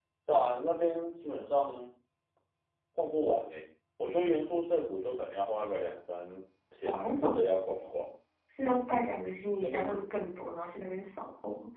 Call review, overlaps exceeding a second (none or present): none